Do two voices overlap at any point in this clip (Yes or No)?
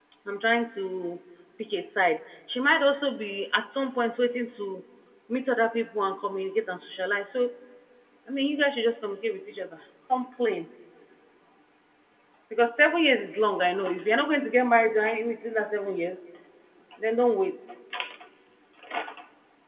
No